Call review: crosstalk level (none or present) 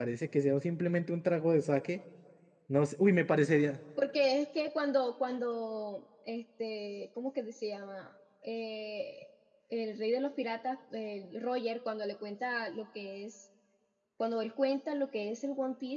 none